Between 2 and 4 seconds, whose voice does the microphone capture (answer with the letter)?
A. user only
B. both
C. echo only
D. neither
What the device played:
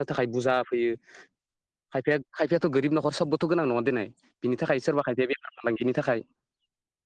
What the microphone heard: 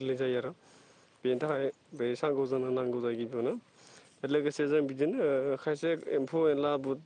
A